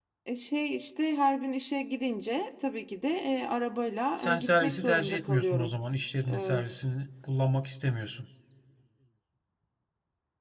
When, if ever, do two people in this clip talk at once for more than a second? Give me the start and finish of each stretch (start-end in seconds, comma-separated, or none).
4.2-5.8